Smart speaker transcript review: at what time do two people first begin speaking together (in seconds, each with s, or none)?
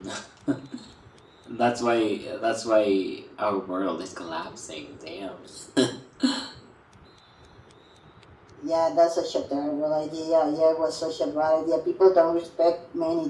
none